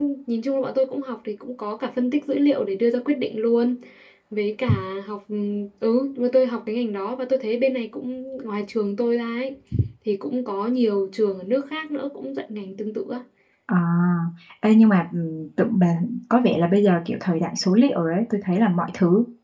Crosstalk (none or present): none